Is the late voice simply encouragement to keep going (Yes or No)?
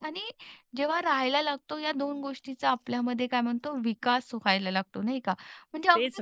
Yes